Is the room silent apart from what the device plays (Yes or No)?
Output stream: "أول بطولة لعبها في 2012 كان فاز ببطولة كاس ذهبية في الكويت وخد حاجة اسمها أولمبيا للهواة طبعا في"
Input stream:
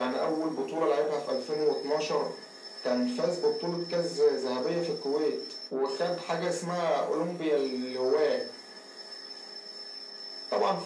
Yes